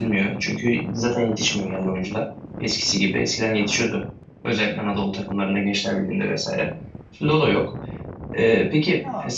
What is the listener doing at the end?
taking over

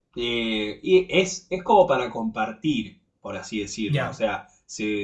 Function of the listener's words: listening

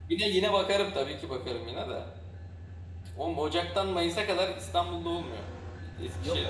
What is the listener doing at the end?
taking over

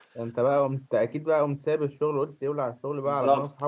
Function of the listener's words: taking over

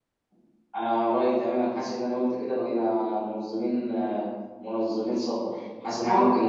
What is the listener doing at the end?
listening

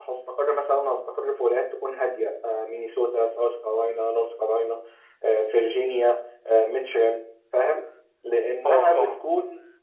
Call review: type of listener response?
listening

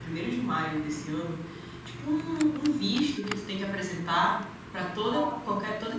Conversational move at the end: listening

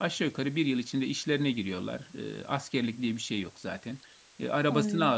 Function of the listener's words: listening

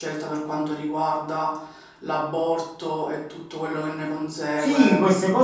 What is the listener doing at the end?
taking over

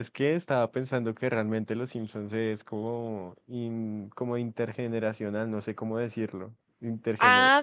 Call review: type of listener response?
taking over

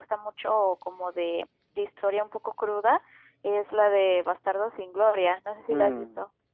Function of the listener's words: taking over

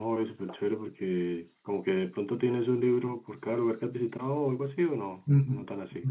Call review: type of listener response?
taking over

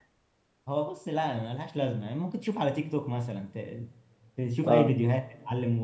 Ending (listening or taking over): listening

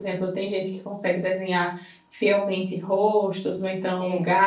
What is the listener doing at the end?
listening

